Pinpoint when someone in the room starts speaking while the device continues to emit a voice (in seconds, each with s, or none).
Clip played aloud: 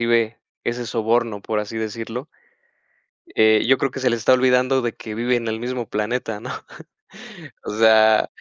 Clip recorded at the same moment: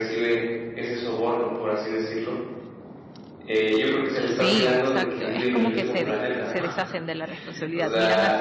4.3 s